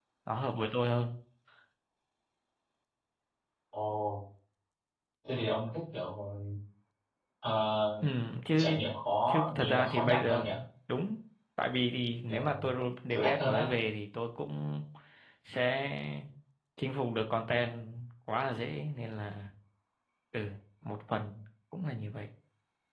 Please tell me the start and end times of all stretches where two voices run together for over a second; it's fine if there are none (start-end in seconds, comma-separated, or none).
9.3-10.5